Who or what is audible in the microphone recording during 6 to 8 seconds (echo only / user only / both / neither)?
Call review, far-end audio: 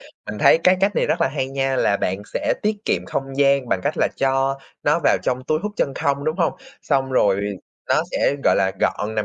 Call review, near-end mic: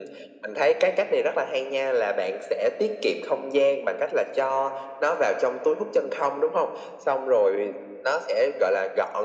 echo only